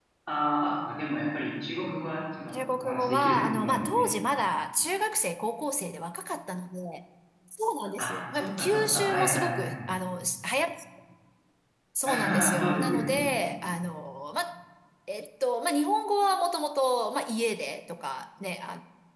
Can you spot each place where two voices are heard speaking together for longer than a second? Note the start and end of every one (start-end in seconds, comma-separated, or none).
2.5-4.1, 8.0-9.9, 12.1-13.3